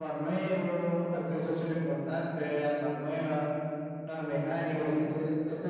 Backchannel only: No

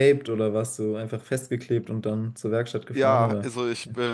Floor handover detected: Yes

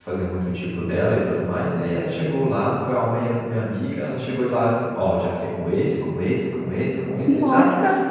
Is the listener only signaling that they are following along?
Yes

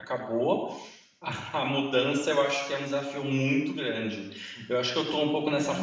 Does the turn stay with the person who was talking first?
Yes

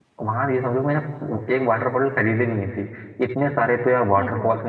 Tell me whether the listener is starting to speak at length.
No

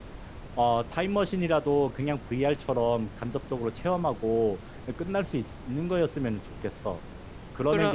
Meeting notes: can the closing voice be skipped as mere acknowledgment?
Yes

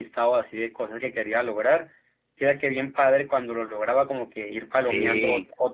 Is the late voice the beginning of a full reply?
No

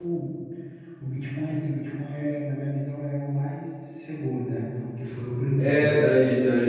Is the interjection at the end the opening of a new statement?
Yes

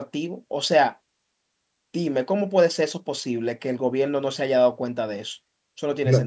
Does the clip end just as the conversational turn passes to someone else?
Yes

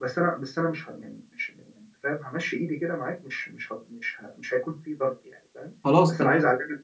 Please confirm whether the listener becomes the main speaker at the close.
No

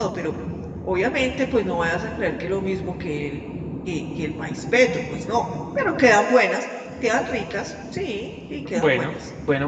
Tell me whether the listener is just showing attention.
No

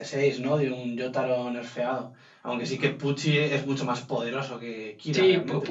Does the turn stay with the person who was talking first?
No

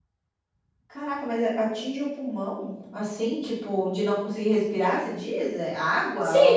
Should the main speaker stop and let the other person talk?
Yes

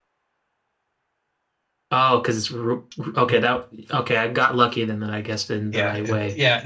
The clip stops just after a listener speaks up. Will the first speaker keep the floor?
No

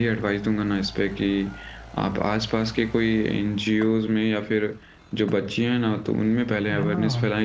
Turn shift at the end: No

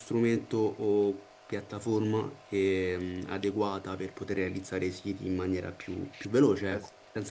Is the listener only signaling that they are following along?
No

